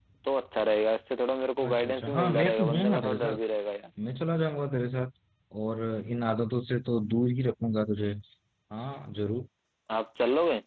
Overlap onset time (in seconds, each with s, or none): 1.6 s